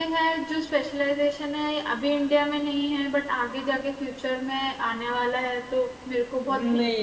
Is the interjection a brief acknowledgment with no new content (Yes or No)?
No